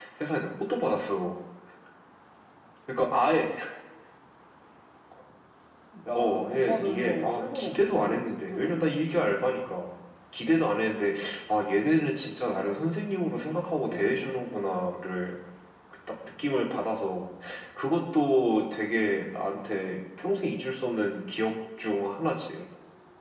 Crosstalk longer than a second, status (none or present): present